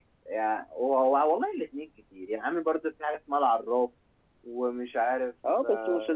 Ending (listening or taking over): taking over